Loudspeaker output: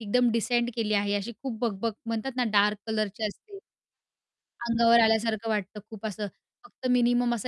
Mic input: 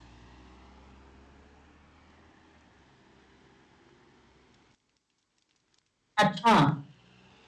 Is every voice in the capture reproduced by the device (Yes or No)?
No